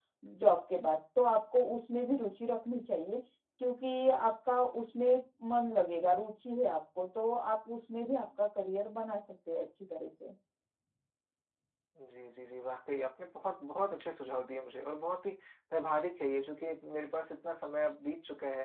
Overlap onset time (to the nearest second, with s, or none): none